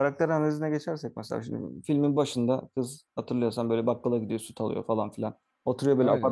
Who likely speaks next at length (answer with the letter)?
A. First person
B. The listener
A